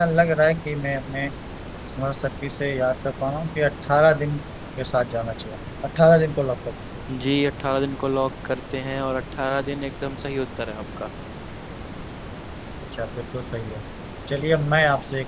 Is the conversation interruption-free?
Yes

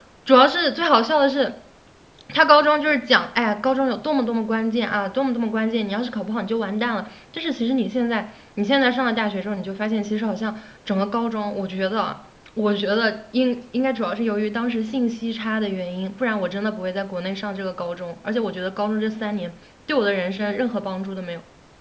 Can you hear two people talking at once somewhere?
No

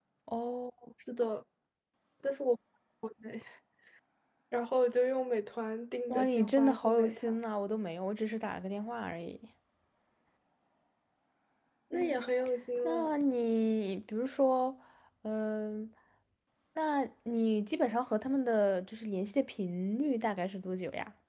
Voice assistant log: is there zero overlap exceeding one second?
No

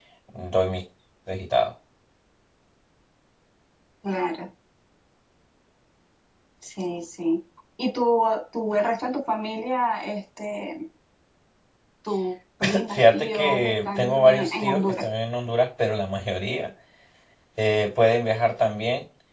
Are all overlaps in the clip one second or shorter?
No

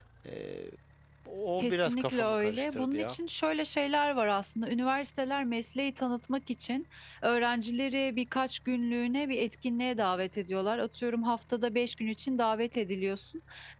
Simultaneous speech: Yes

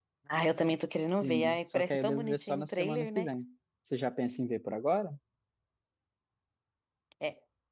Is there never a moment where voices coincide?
No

